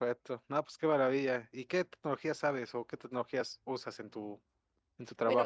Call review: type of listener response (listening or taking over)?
taking over